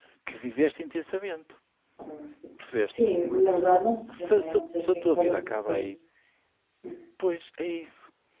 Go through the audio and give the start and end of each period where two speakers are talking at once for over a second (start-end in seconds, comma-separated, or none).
4.2-5.8